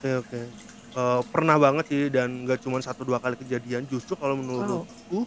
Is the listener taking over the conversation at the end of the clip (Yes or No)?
No